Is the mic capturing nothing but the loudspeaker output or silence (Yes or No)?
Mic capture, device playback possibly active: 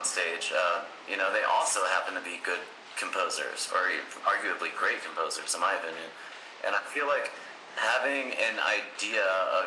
Yes